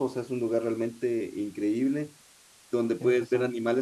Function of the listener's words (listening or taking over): listening